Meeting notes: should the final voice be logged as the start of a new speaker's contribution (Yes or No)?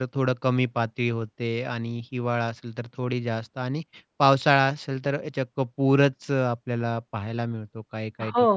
Yes